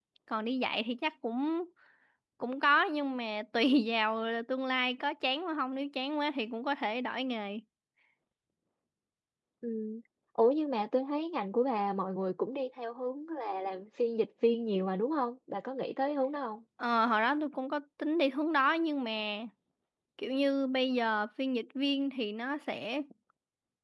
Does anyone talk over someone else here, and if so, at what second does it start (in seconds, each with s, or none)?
none